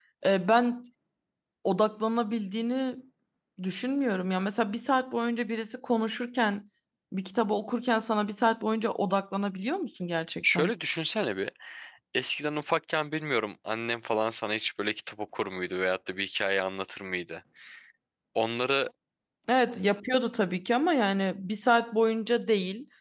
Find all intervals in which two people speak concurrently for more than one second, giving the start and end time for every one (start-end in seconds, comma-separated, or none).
none